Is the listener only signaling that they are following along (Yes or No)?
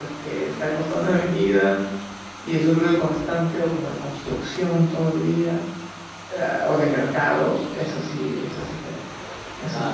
No